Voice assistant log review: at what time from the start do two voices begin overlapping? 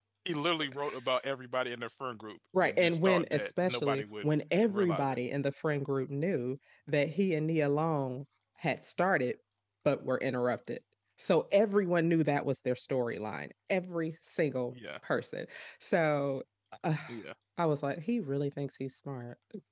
2.5 s

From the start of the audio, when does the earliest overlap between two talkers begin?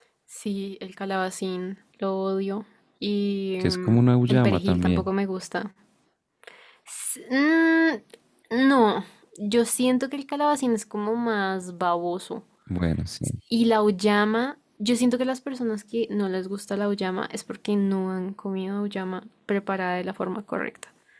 3.6 s

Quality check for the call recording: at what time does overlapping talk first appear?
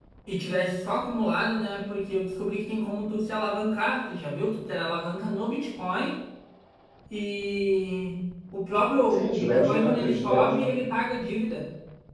9.1 s

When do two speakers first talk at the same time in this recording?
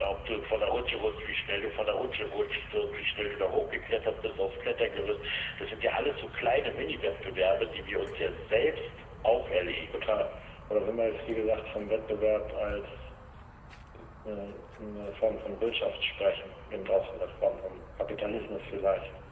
none

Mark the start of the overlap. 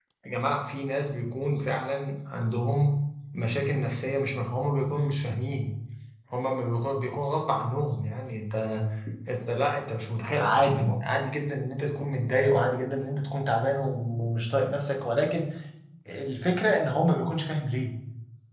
none

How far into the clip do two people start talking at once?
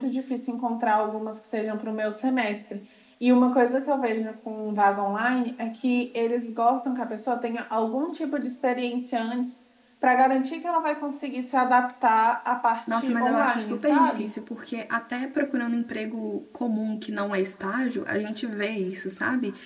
12.9 s

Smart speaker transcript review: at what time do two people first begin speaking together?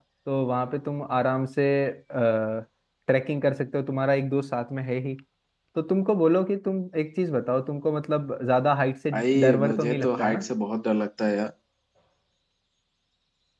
9.1 s

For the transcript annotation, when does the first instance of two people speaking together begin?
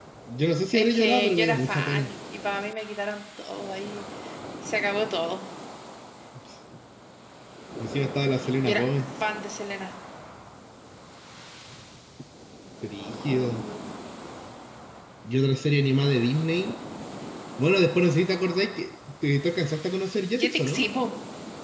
0.7 s

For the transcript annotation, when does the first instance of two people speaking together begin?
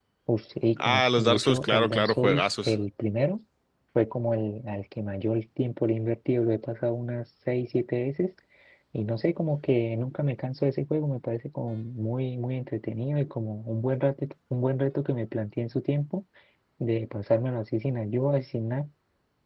0.8 s

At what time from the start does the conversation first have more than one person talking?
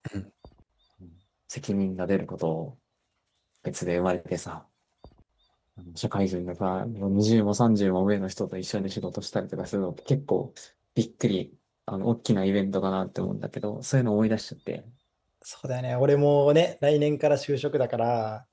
none

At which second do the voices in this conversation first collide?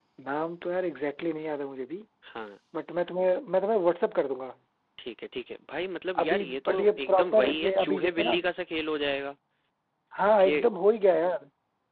6.2 s

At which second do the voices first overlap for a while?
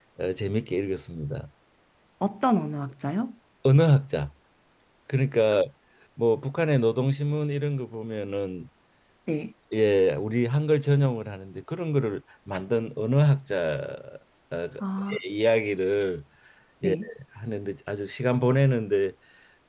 none

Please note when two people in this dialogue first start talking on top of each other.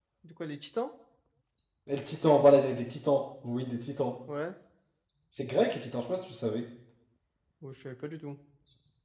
none

